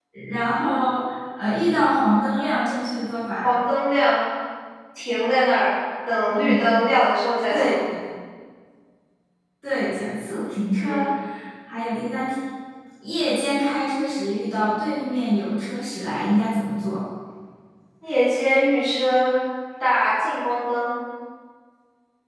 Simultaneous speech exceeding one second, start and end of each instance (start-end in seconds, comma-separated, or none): none